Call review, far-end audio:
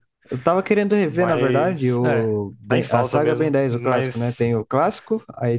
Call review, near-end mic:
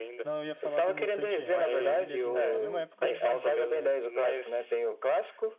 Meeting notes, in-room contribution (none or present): present